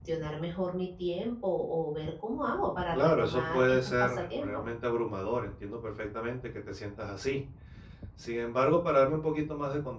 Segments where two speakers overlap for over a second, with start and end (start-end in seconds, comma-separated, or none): 2.9-4.5